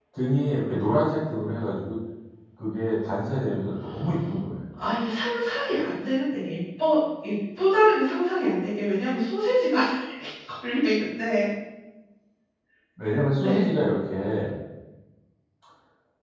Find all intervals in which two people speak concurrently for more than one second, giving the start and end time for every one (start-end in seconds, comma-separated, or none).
none